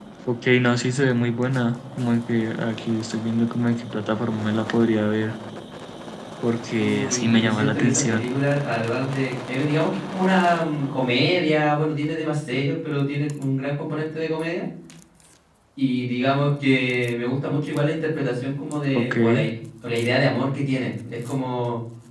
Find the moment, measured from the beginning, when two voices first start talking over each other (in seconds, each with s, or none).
6.8 s